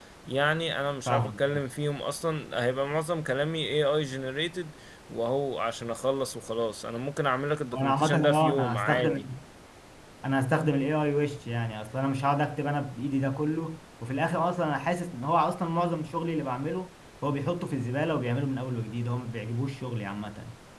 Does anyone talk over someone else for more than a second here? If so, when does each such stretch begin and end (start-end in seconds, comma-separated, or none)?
7.7-9.2